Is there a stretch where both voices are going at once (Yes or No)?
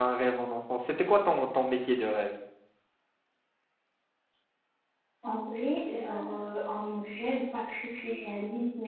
No